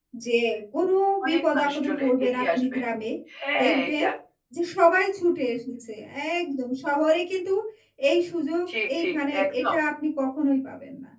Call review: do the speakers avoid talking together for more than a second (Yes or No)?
No